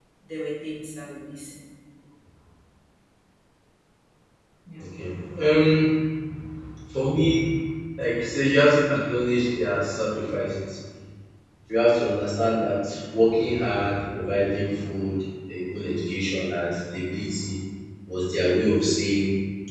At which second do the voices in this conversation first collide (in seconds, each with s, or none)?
none